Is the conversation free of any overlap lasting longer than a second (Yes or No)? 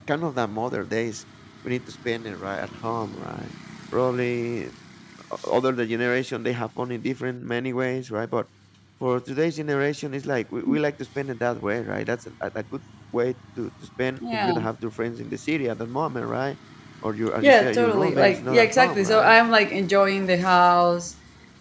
No